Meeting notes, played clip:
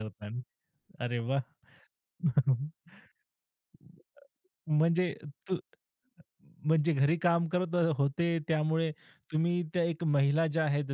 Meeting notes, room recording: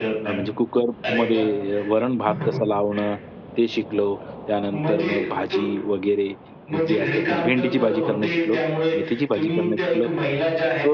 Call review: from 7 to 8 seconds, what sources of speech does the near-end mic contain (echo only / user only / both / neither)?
both